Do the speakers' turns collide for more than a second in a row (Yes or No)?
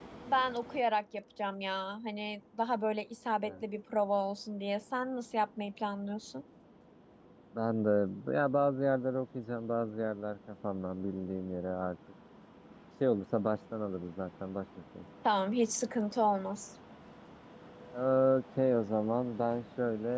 No